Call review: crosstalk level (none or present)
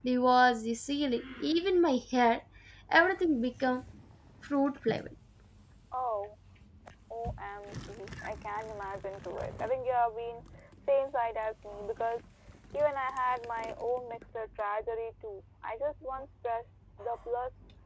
none